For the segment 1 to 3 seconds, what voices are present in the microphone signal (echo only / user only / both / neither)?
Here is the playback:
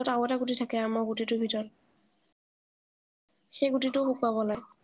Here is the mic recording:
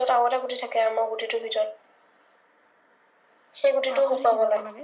echo only